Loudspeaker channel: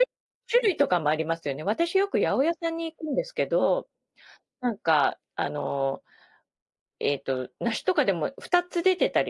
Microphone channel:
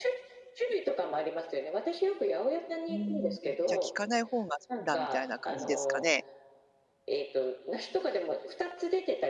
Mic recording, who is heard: both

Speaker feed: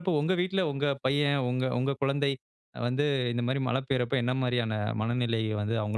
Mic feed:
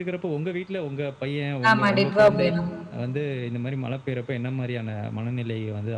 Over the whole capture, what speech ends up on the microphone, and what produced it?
both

